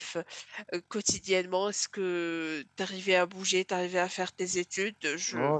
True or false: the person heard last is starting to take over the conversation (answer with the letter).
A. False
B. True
B